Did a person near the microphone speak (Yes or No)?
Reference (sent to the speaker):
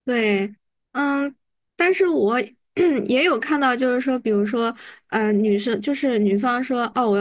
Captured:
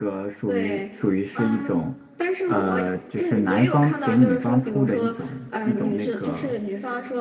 Yes